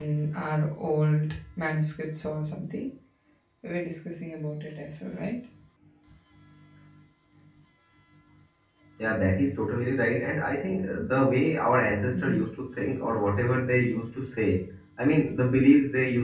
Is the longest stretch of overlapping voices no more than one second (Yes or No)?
Yes